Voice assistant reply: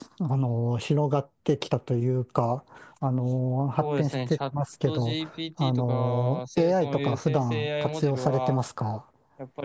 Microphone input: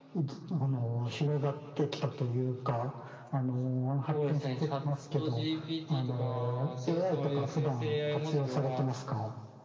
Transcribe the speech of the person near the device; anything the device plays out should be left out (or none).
none